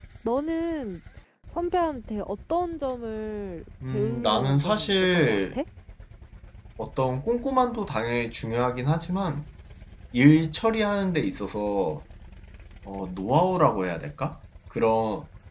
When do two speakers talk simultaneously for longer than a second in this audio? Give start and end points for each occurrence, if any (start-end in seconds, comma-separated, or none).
3.9-5.6